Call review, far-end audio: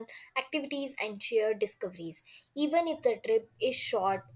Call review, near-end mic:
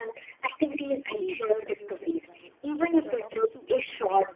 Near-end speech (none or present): present